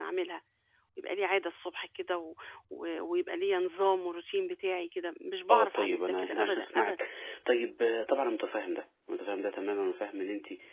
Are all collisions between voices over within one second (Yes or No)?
No